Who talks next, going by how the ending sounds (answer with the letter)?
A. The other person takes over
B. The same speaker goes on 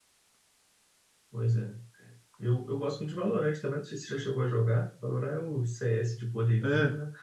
A